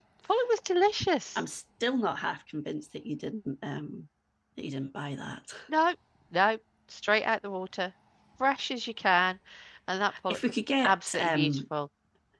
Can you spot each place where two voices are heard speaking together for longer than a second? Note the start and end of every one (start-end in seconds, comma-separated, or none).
10.3-11.6